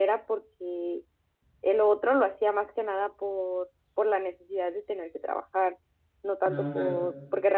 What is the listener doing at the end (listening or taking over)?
listening